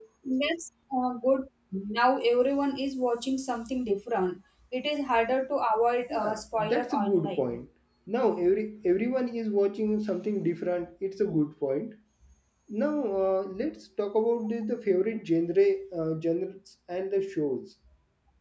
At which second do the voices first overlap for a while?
6.1 s

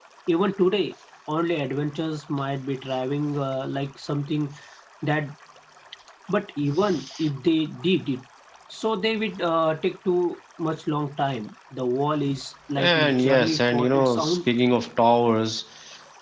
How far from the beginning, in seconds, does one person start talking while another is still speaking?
12.8 s

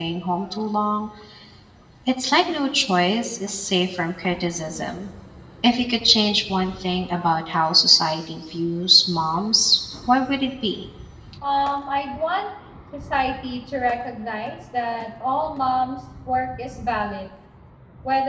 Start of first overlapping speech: none

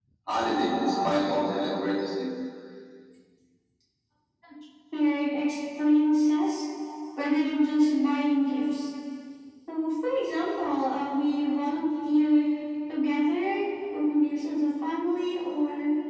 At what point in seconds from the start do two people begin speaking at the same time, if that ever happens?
none

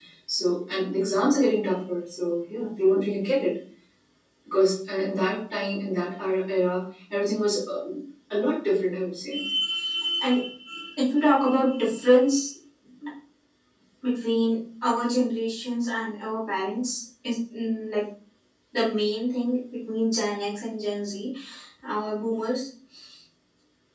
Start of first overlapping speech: none

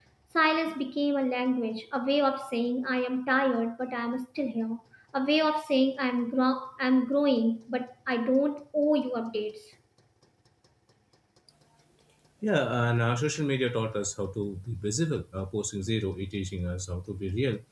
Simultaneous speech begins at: none

